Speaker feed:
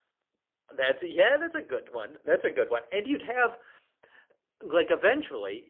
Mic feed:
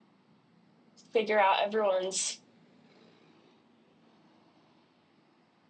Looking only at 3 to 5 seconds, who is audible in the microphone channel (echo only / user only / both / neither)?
neither